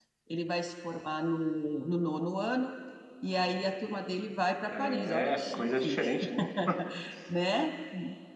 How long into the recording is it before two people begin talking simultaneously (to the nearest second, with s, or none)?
5 s